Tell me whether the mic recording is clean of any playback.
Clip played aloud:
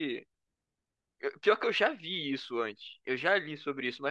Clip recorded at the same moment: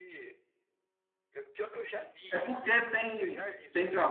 No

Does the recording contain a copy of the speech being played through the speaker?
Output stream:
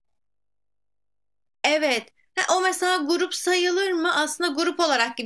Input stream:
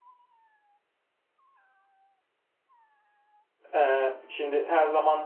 No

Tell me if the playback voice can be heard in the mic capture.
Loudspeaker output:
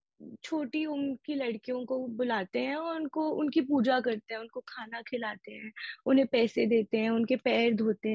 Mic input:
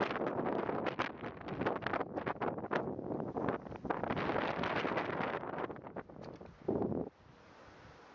No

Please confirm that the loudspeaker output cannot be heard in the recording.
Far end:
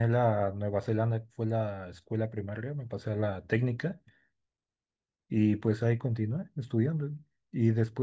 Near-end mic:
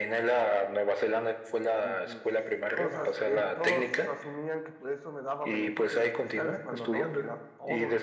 No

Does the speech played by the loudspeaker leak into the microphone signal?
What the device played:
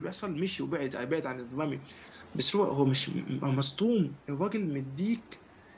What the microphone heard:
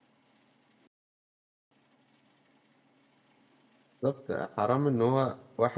No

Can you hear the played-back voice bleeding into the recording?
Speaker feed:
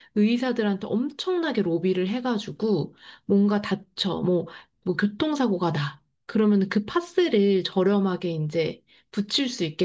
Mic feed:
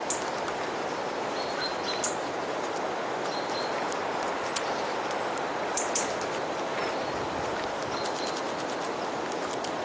No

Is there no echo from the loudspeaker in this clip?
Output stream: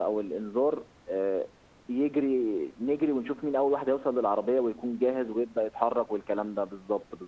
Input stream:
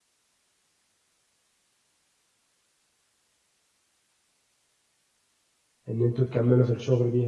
Yes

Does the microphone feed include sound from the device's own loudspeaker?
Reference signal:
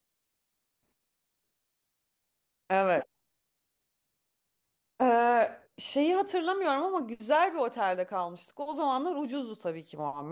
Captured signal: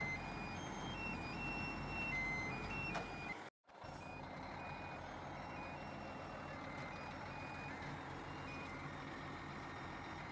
No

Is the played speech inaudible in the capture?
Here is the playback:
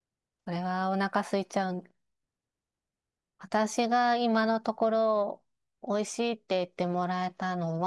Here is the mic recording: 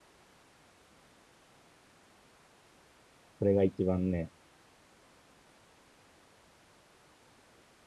Yes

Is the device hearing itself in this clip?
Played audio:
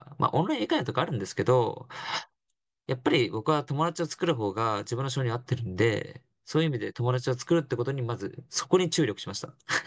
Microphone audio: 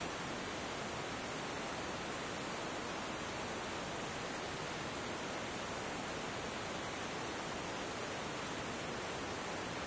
No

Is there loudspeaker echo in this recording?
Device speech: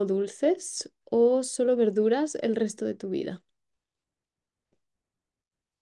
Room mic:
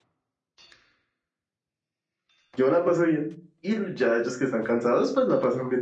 No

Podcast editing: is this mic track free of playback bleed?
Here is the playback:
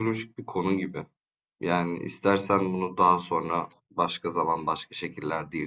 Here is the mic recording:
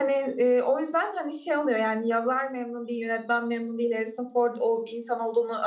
Yes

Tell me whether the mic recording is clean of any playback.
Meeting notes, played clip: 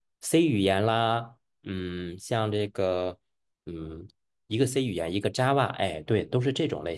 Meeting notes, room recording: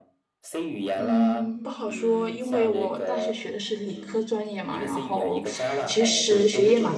No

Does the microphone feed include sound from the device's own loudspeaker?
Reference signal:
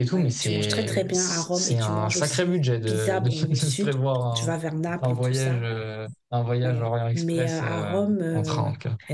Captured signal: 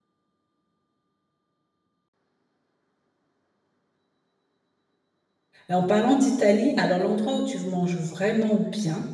No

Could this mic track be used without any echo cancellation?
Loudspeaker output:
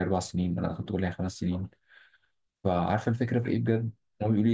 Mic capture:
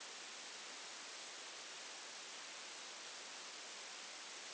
Yes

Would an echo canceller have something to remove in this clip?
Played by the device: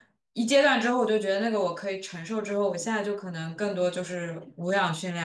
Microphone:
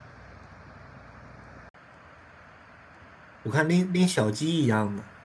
No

